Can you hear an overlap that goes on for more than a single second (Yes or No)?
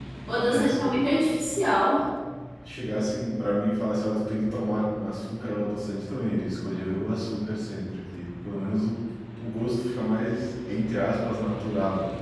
No